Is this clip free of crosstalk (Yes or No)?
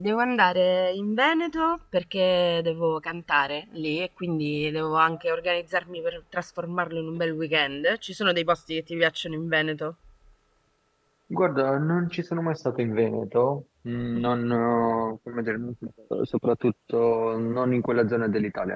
Yes